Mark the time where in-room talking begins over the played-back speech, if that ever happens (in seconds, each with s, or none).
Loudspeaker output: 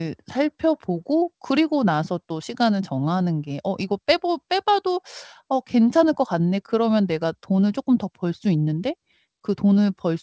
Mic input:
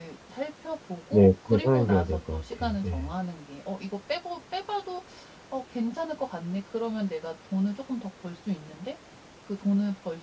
1.1 s